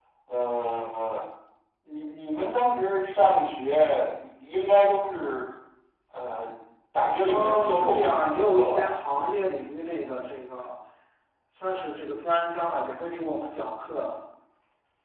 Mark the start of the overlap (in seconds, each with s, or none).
7.3 s